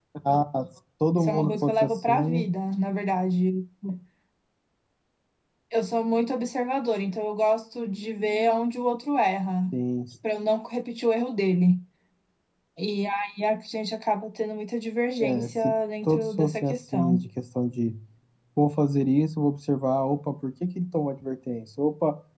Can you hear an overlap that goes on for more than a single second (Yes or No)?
Yes